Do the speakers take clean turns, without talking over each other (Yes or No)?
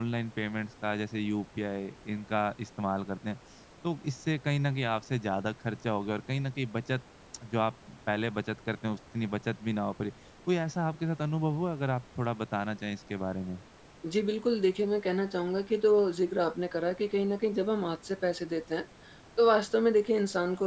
Yes